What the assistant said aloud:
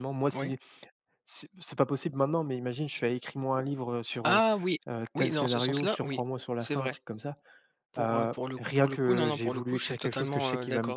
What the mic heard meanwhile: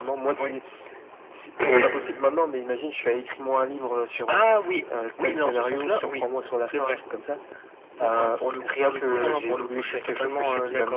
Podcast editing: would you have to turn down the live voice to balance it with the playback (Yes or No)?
Yes